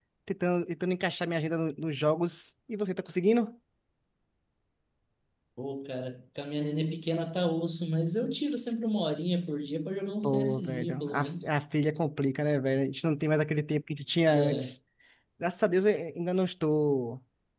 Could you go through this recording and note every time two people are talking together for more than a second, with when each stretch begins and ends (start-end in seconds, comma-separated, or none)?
10.2-11.5